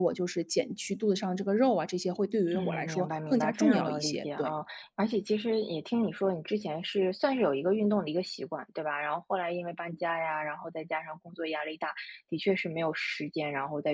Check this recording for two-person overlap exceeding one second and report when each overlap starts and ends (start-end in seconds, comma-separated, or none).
2.5-4.5